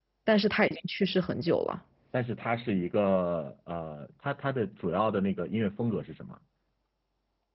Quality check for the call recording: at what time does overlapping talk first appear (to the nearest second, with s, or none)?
none